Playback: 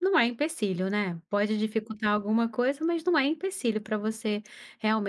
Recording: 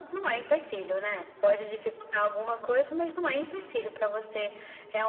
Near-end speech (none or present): none